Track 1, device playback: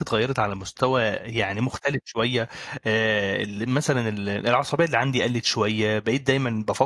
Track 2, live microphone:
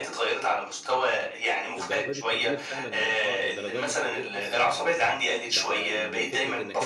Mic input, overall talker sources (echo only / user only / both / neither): both